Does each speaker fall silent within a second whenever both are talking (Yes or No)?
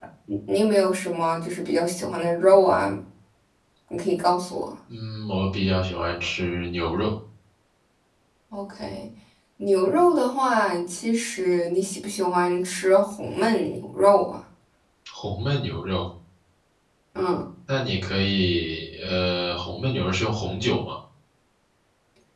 Yes